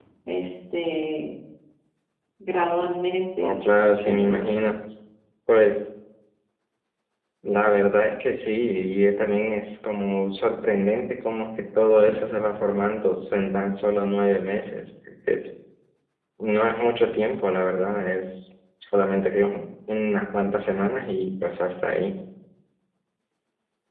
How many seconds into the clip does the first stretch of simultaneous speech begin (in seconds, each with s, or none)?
3.4 s